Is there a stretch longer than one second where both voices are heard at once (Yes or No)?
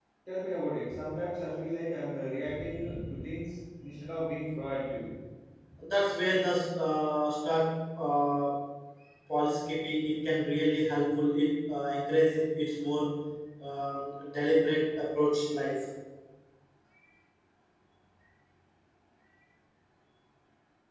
No